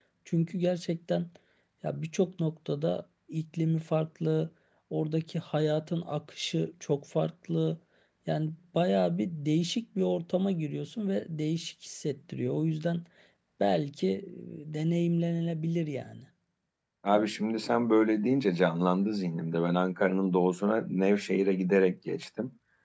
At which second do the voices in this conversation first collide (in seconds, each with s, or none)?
none